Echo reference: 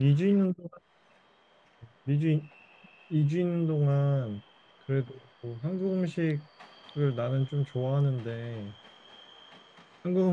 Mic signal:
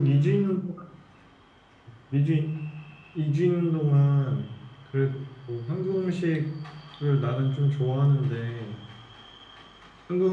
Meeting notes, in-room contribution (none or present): none